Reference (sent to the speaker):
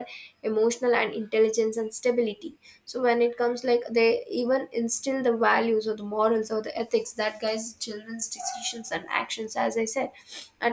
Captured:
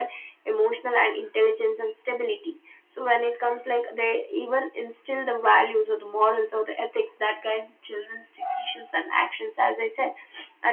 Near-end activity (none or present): none